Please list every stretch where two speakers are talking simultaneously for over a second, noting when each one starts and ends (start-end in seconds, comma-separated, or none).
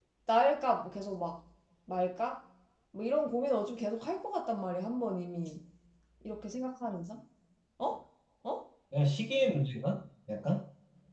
none